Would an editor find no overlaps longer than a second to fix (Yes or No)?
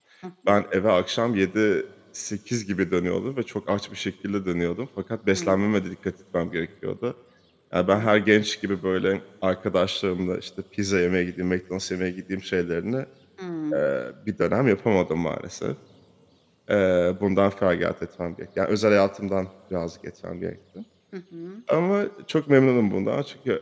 Yes